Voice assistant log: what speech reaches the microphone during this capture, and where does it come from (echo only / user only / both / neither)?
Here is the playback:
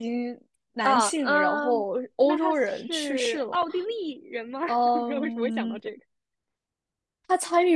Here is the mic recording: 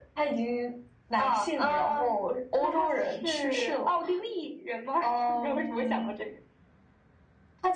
echo only